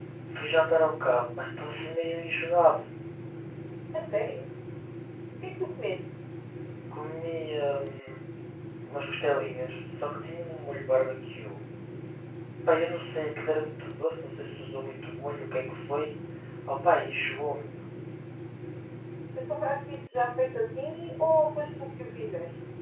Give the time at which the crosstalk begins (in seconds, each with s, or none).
none